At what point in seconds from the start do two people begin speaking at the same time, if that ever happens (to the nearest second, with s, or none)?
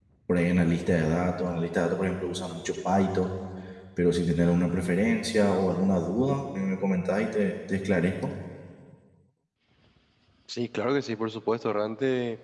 none